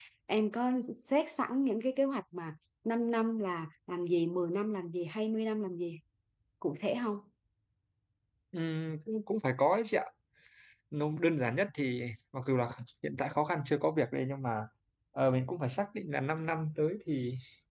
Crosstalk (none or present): none